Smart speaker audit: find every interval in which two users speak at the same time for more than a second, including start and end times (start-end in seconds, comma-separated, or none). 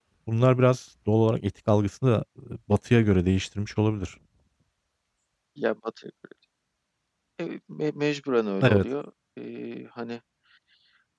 none